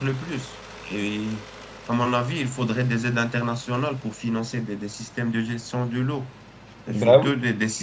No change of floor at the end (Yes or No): Yes